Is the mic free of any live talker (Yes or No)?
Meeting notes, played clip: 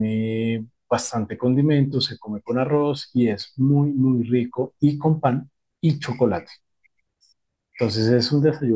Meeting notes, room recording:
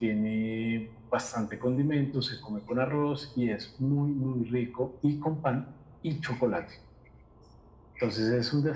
Yes